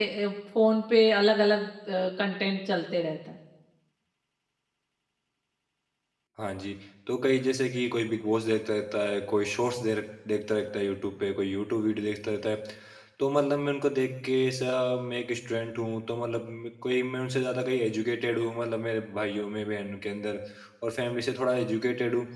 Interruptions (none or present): none